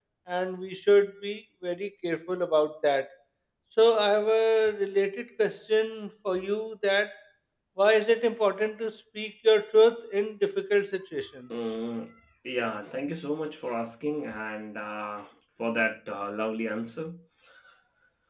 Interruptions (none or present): none